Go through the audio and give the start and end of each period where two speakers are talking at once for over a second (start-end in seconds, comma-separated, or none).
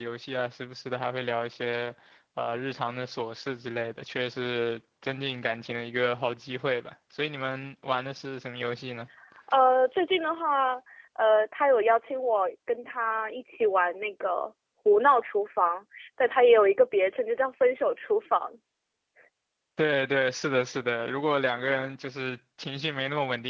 none